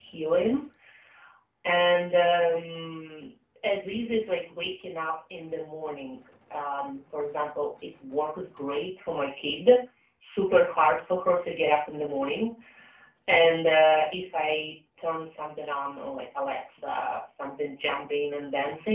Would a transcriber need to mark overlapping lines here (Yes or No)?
No